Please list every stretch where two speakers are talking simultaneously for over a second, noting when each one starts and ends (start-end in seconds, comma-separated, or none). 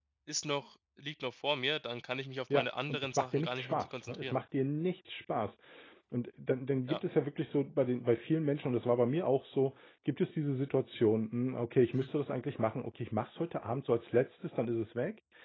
2.5-4.4